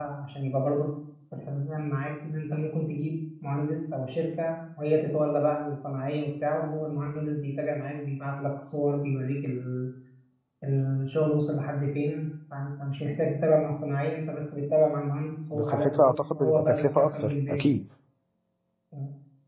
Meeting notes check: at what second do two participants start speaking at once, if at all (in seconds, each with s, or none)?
15.5 s